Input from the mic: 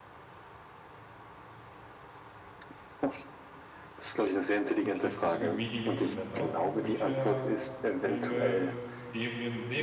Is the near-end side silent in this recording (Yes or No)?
No